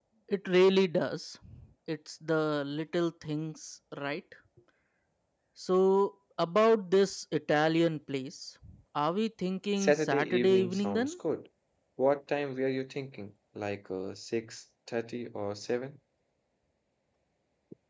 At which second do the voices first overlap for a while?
10 s

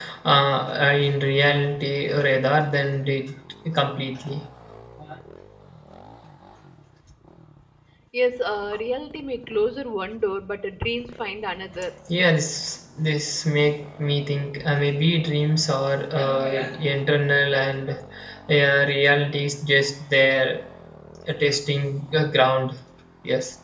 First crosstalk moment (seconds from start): none

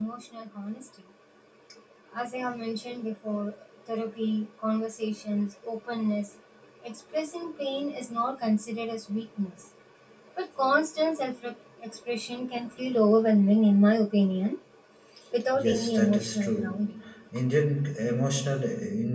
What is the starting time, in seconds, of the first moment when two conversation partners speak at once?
16 s

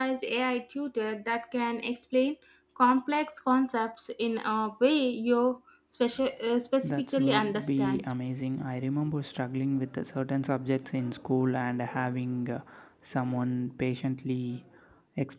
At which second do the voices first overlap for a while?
7 s

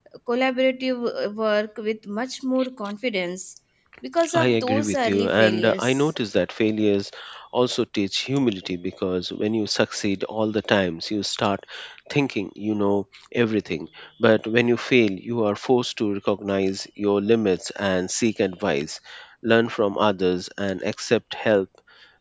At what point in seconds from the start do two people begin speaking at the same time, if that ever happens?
4 s

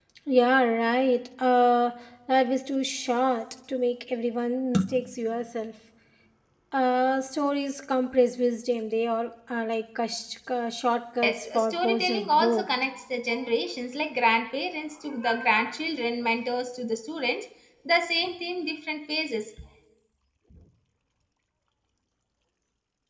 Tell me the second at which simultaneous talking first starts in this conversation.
11 s

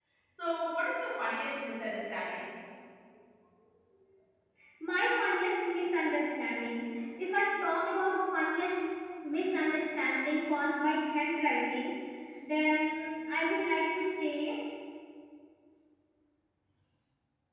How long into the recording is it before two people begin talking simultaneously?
none

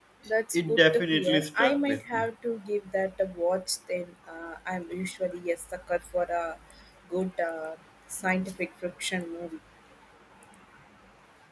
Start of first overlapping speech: 1 s

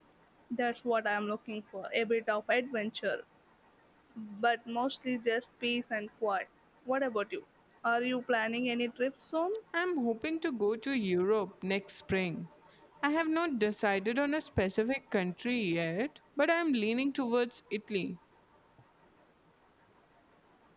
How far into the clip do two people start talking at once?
none

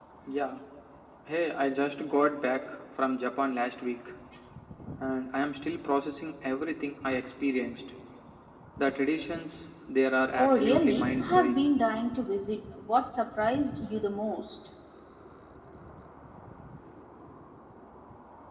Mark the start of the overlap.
10 s

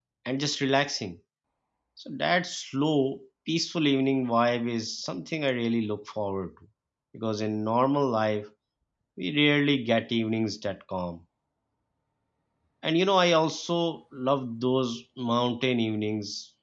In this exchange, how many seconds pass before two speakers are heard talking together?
none

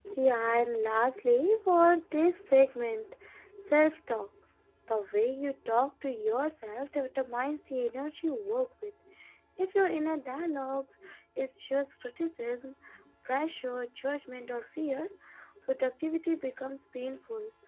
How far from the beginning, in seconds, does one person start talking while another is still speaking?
none

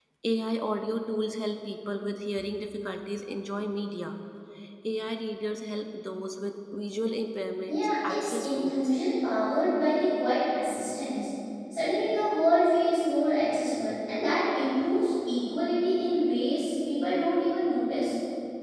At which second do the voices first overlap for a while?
8 s

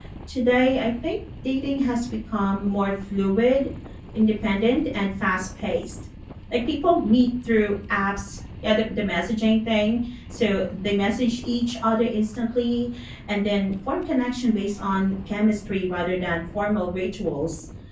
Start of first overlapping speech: none

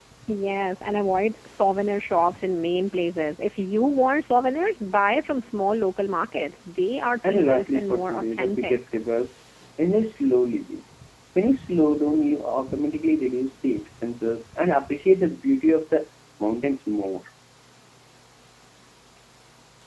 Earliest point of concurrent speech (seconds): 7 s

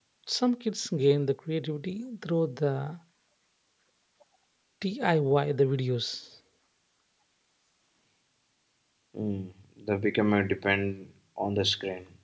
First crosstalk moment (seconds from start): none

